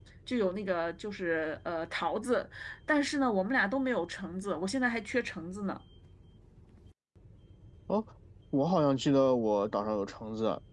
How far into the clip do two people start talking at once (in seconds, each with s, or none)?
none